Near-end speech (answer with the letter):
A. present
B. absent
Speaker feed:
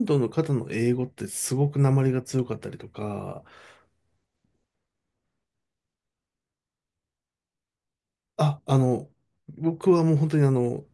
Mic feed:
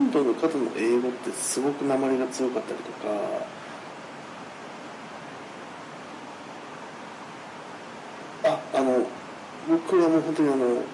B